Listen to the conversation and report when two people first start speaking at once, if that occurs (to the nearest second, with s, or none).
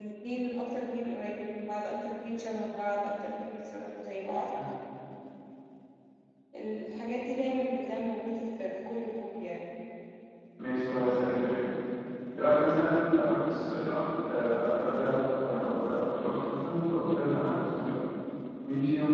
none